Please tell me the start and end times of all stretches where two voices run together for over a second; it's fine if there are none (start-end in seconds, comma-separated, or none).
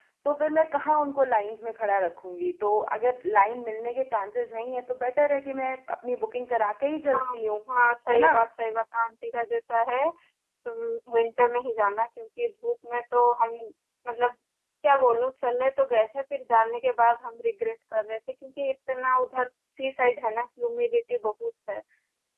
none